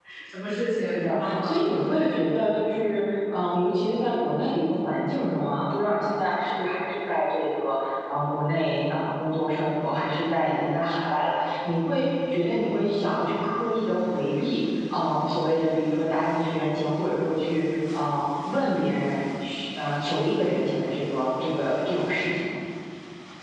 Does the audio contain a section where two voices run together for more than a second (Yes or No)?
Yes